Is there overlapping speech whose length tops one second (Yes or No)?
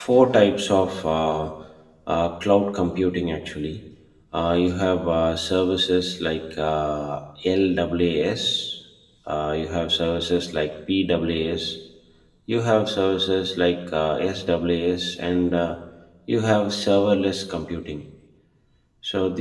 No